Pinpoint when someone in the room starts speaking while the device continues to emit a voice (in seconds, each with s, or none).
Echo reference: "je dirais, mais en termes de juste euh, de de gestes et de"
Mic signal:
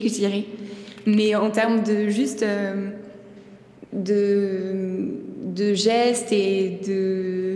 none